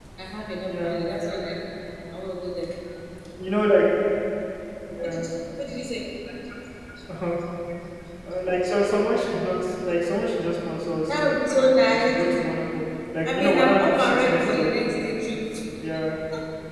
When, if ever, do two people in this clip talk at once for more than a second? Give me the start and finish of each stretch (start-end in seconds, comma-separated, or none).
13.2-14.8